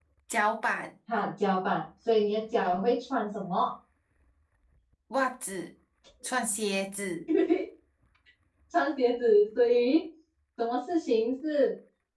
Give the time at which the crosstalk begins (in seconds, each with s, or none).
none